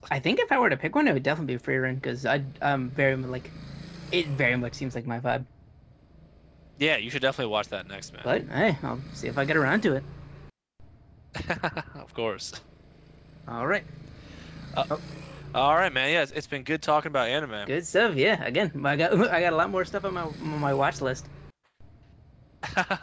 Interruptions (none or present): none